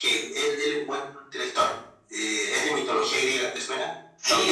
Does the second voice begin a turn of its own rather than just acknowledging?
Yes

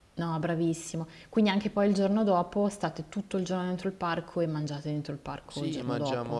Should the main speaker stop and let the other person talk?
Yes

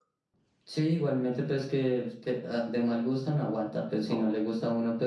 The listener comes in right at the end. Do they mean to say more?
No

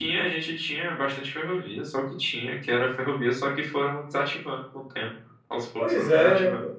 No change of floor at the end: No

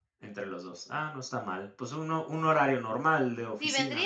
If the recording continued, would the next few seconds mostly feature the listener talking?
Yes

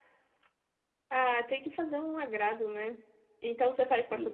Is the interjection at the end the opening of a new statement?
No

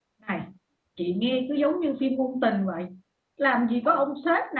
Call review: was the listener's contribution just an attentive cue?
Yes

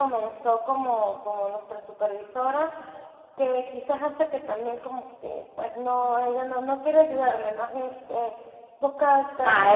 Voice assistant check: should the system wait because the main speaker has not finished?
No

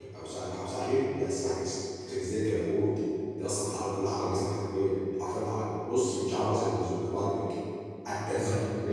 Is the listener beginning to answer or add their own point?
No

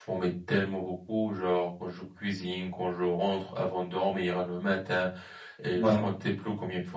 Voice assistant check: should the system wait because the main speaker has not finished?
Yes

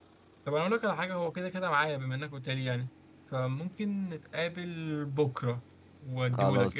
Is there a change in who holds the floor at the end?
Yes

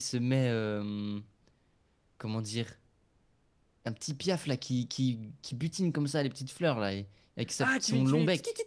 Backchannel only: No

